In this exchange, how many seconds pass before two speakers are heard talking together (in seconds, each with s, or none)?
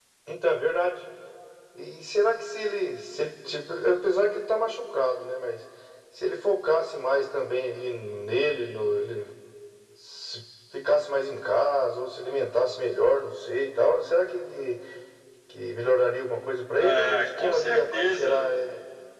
16.8 s